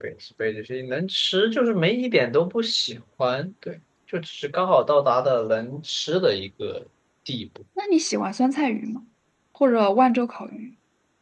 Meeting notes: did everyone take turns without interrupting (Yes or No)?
Yes